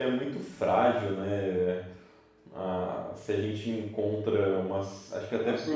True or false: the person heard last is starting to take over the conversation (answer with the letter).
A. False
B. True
A